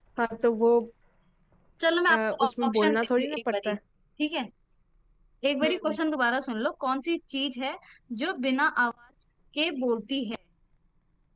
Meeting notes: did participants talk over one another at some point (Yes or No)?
Yes